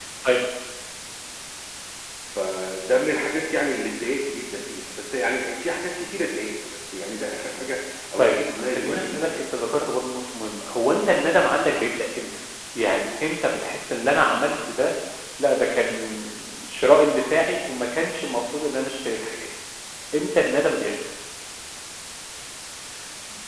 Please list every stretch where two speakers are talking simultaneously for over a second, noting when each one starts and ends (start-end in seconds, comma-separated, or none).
8.2-9.5